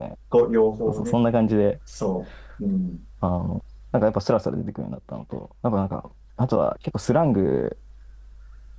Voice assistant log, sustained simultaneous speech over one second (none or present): none